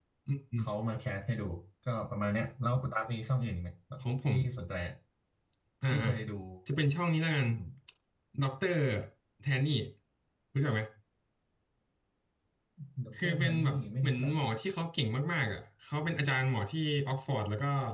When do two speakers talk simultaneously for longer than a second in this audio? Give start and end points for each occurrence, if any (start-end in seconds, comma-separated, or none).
13.2-14.4